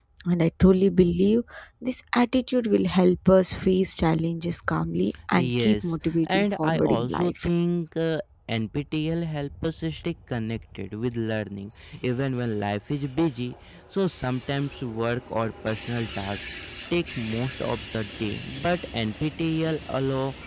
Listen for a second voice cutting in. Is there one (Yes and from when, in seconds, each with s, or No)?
Yes, from 5.3 s